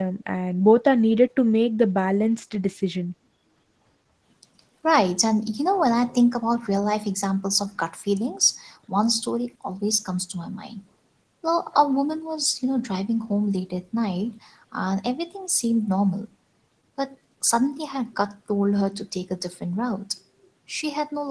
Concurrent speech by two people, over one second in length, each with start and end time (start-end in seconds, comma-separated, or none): none